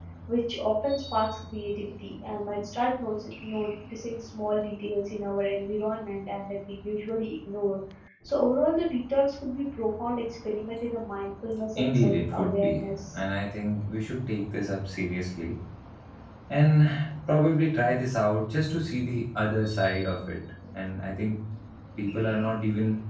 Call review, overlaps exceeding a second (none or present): present